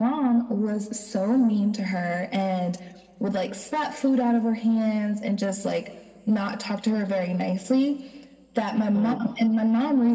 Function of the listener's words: listening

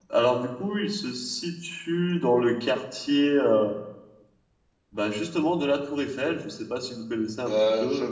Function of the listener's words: taking over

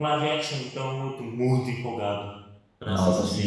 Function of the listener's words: taking over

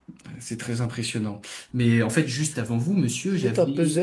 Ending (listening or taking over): taking over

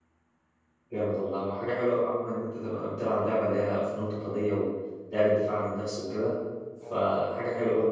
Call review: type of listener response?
listening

